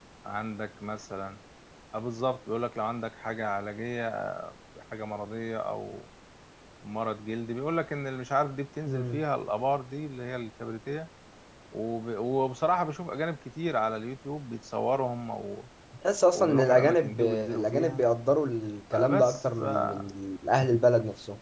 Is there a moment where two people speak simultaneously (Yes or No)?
Yes